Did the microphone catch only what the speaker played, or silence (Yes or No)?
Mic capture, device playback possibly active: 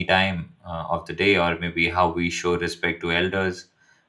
No